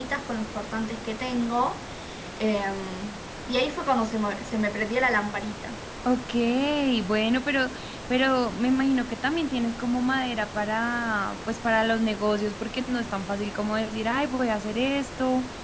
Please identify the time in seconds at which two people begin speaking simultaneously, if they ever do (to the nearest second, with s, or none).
none